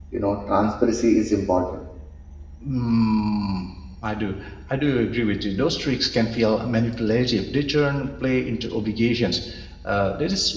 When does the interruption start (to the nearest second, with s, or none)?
none